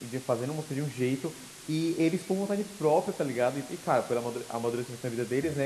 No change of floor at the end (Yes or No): Yes